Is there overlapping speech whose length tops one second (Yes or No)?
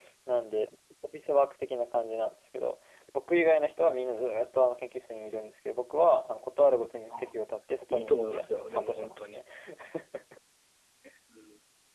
Yes